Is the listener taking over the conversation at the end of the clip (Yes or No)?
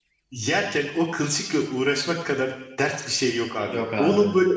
No